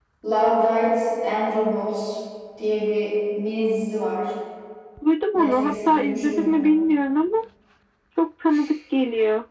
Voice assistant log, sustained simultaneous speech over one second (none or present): present